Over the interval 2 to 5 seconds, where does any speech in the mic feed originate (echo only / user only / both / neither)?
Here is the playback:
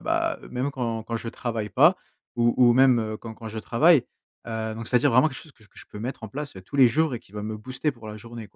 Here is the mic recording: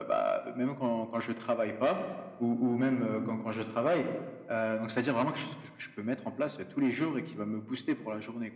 echo only